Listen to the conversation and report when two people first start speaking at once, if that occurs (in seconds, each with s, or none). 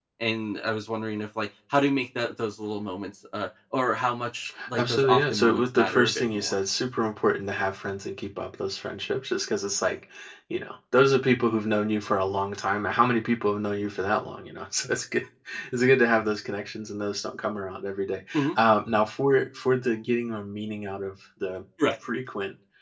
4.8 s